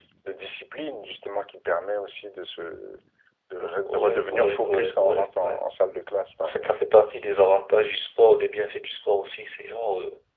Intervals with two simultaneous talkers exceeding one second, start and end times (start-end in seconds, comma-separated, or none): 3.9-5.6